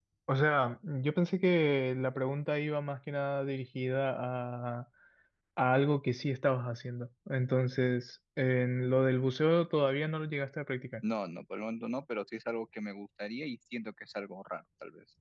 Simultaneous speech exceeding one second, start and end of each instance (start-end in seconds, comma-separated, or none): none